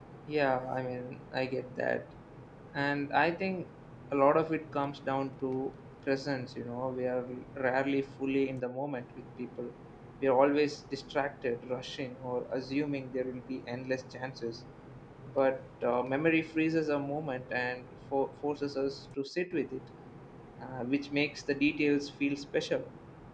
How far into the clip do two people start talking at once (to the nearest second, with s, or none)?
none